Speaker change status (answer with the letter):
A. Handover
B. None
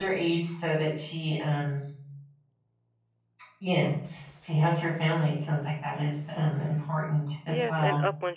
A